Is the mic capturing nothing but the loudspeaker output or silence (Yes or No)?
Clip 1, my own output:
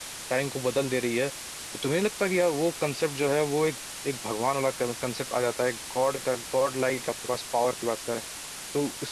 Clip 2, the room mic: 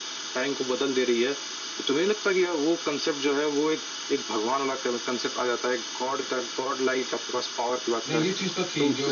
No